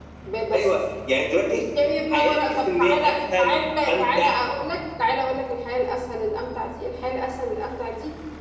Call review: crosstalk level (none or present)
present